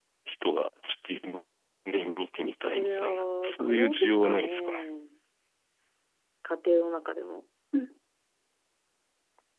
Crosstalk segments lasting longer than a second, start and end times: 2.7-4.8

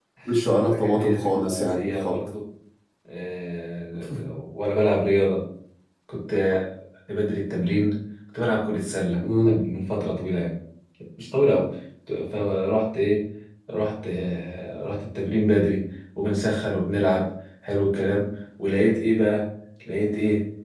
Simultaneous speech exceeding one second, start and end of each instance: 0.7-2.1

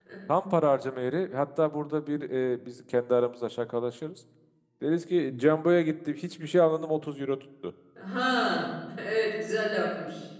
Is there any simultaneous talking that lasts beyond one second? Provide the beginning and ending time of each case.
none

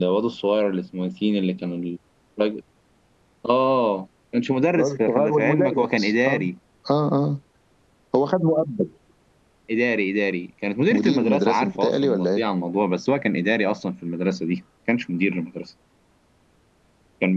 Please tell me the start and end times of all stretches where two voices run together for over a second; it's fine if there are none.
4.8-6.4, 10.9-12.4

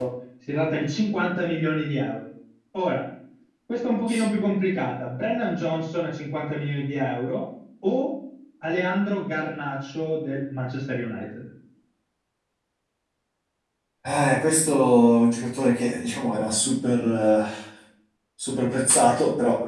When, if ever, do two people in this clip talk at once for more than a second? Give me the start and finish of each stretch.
none

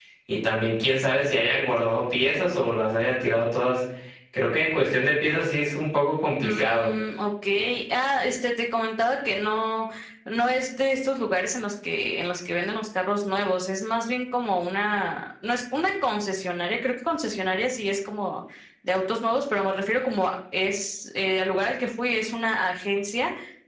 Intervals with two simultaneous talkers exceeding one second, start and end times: none

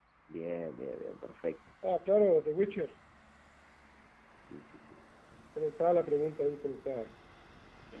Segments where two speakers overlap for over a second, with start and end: none

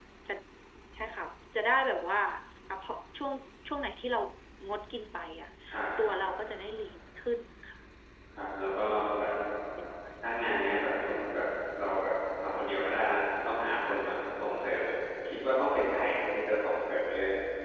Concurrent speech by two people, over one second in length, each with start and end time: none

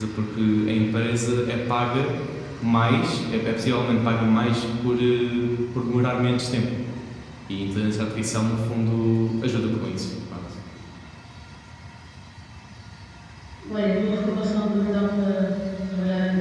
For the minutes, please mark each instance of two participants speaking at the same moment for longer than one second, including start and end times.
none

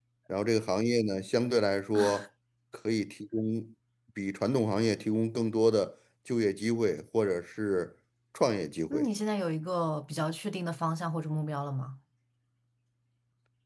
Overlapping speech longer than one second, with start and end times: none

